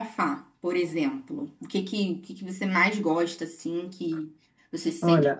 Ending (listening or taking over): taking over